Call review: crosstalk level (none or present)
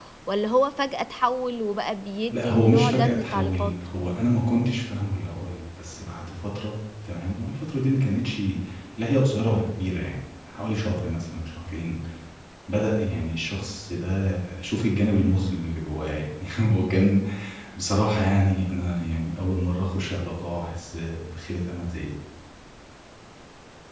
present